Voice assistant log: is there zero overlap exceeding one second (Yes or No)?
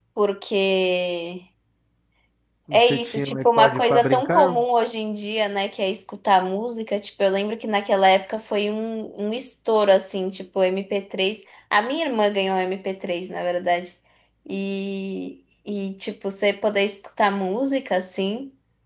No